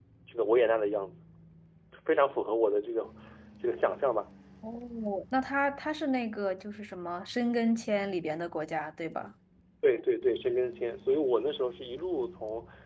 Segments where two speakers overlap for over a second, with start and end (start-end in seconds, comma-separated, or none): none